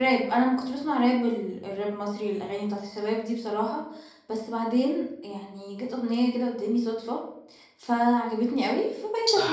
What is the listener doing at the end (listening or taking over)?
taking over